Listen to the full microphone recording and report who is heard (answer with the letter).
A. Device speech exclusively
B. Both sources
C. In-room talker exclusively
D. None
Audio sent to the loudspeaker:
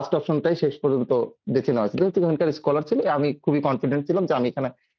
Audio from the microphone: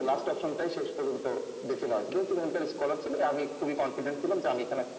A